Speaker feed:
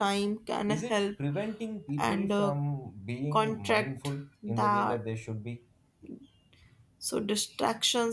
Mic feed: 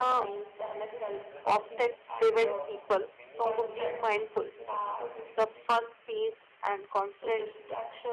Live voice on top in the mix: Yes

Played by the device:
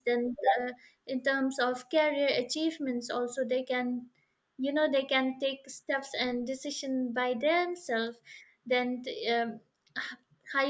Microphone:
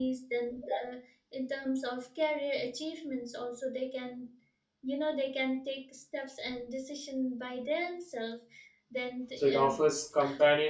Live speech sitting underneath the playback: No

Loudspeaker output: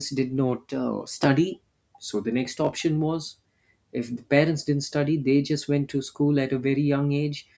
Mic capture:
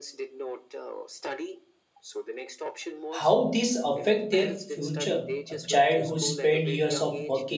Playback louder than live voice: No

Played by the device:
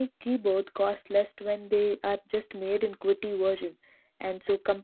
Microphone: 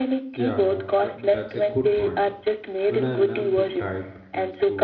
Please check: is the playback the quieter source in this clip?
No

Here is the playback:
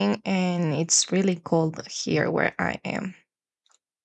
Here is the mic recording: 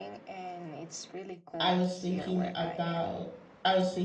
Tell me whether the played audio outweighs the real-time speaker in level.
No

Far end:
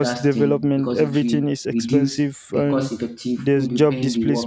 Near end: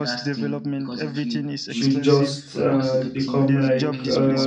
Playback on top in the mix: No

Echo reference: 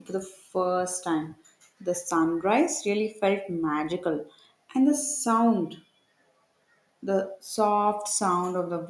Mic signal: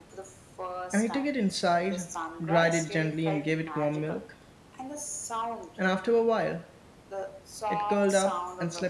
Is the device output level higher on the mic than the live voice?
No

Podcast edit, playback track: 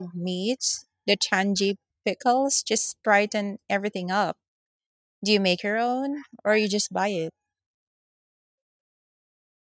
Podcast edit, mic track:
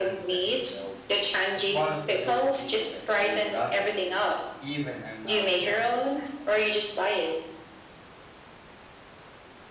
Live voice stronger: No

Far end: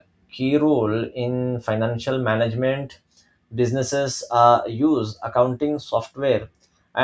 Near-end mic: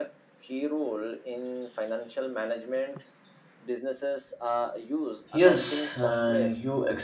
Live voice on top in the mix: Yes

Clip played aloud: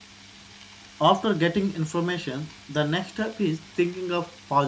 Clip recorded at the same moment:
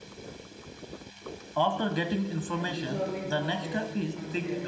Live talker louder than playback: No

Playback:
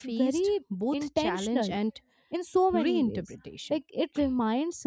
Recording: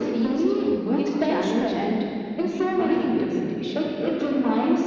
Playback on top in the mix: Yes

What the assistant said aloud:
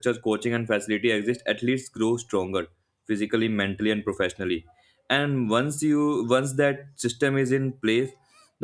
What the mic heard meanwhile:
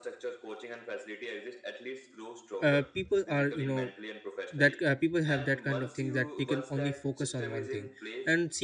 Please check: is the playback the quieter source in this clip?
Yes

